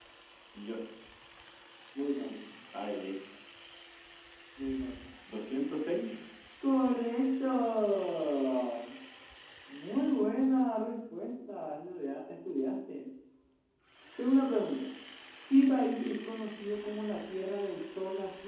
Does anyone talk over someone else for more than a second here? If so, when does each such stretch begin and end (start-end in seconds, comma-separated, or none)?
none